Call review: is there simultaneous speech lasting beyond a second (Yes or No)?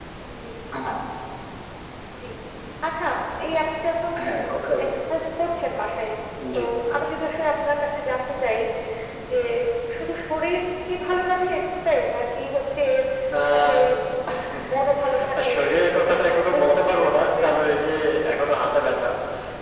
Yes